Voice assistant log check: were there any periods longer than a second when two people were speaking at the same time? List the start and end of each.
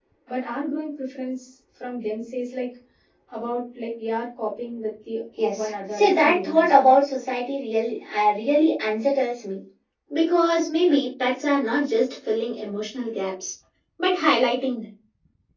5.5-6.9

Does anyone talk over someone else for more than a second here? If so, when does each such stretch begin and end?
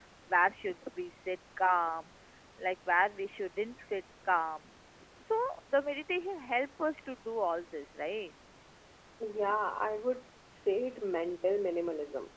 none

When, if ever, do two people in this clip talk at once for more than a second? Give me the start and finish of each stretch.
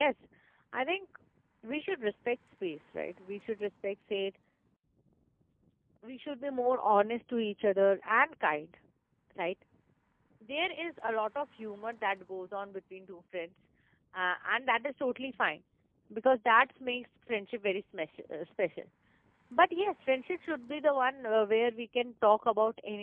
none

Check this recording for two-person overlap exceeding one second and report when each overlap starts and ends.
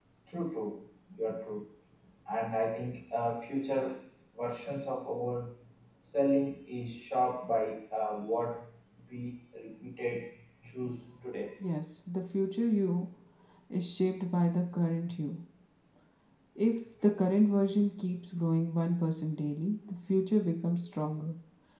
none

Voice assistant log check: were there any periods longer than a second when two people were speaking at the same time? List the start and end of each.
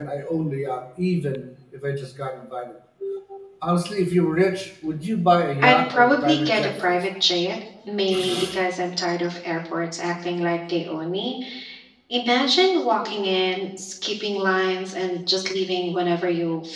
5.6-7.0

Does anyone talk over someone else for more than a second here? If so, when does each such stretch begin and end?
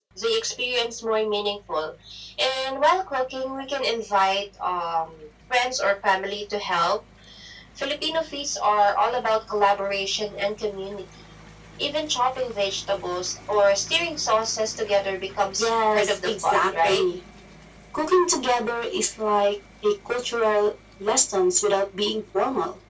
15.6-17.0

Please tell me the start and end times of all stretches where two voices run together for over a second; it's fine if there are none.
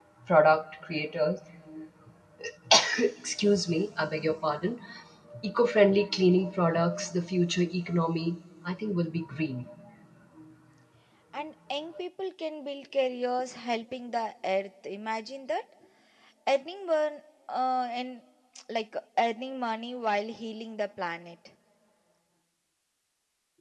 none

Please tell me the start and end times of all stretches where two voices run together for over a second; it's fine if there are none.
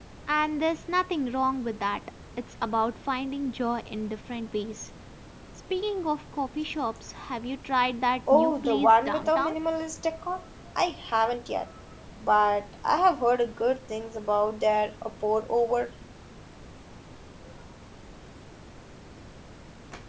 8.3-9.5

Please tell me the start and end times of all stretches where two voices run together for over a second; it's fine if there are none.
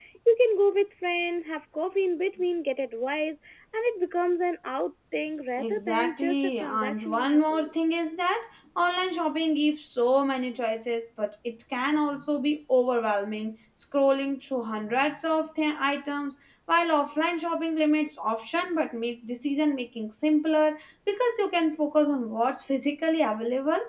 5.6-7.7

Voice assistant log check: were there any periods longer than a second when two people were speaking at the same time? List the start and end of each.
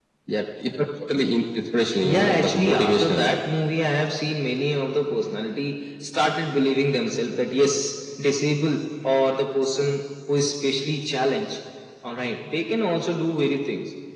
2.0-3.2

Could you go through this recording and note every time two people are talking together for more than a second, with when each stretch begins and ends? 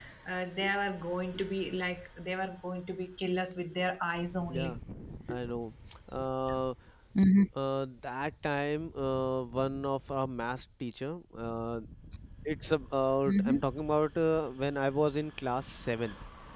none

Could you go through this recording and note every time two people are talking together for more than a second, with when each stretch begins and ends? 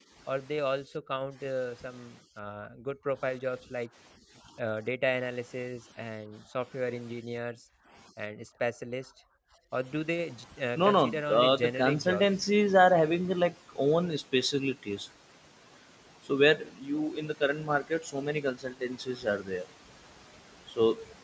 10.8-12.2

